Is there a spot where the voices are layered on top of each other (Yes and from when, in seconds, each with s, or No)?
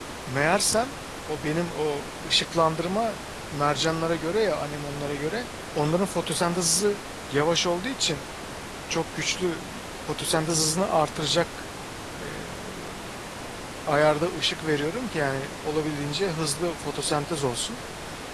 No